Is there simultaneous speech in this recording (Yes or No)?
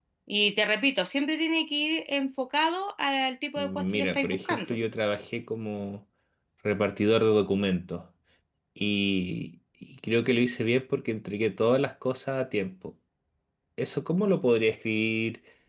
Yes